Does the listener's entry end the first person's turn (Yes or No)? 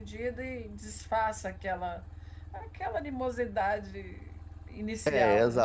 Yes